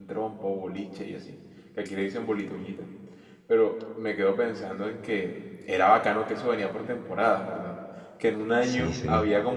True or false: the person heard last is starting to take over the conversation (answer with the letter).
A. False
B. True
A